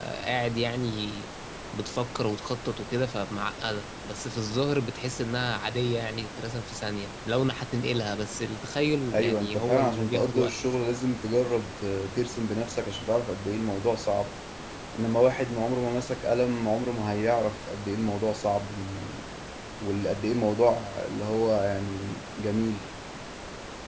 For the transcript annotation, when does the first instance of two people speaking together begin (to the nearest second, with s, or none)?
9 s